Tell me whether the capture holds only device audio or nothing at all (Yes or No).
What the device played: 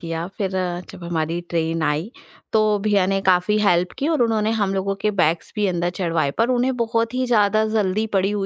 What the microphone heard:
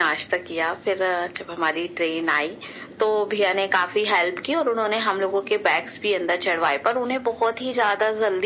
Yes